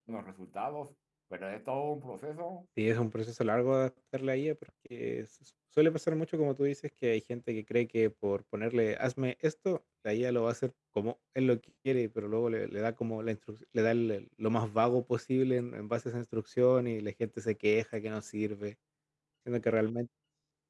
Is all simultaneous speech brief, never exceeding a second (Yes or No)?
Yes